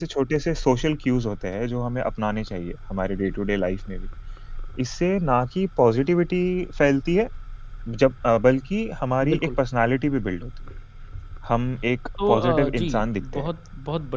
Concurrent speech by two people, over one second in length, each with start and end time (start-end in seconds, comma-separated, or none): 12.2-13.5